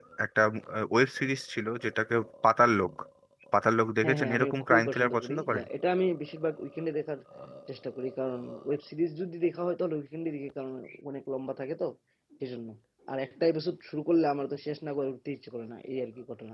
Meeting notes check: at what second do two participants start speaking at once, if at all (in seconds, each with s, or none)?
4.0 s